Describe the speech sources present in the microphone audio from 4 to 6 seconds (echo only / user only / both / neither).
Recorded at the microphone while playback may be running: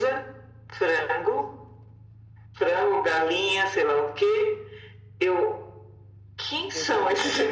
echo only